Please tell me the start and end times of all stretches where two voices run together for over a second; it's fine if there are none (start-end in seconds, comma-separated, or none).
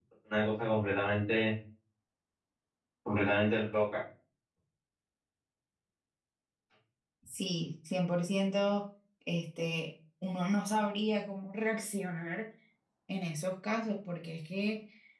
none